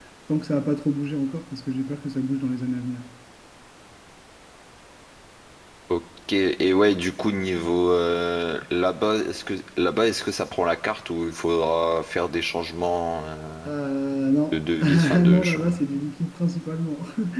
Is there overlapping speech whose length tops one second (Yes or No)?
Yes